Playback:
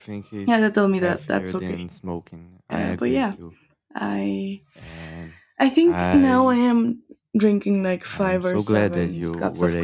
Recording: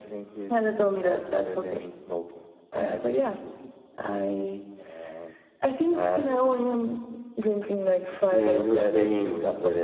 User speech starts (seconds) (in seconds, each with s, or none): 8.3 s